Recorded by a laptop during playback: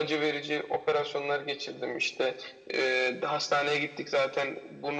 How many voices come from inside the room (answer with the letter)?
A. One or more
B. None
B